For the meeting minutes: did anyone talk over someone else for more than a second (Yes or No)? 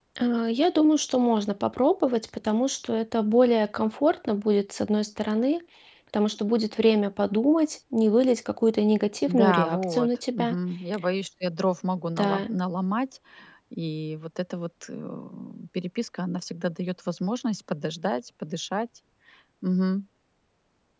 Yes